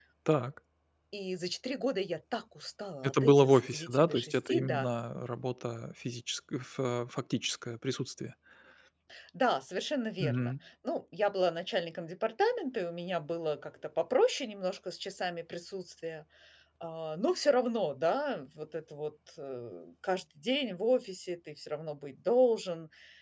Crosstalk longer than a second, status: present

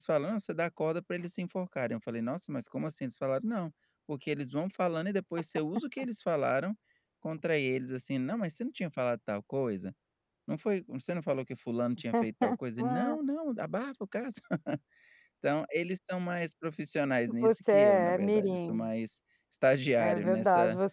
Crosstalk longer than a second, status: present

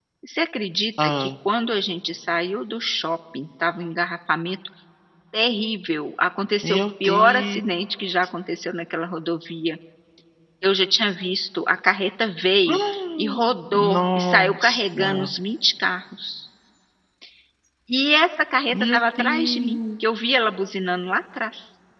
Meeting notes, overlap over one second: present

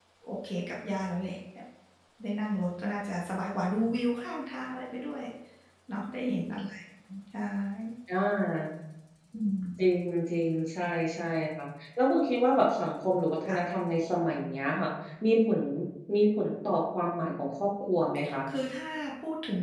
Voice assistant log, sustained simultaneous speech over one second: none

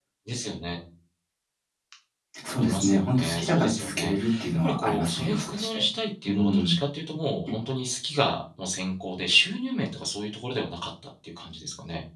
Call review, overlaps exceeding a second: present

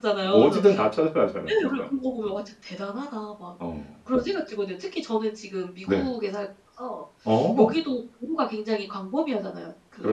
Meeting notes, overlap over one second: none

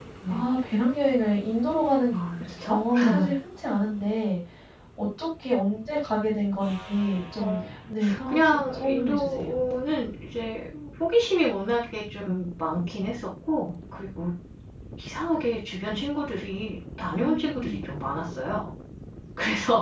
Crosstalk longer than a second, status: present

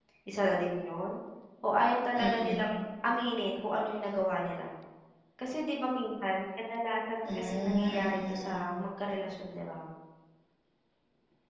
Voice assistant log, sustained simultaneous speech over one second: present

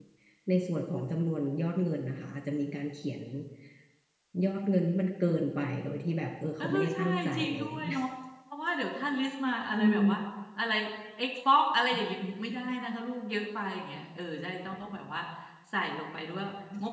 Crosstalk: present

